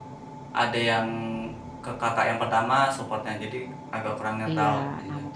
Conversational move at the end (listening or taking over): taking over